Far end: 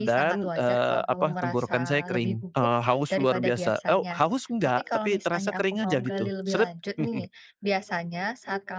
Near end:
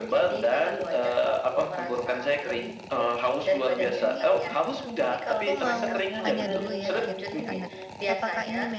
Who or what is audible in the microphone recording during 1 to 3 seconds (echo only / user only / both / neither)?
echo only